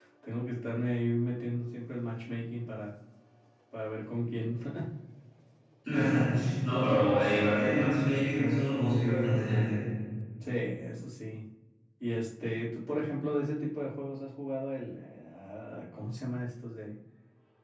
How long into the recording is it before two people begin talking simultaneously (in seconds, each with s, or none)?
none